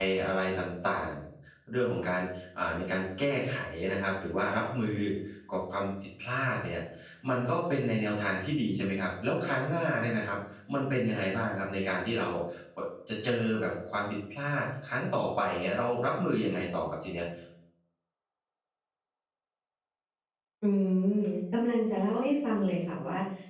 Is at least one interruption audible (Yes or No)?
No